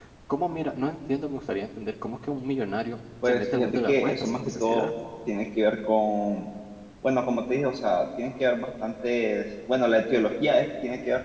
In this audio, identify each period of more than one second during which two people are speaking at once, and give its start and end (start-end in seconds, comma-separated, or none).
3.2-4.9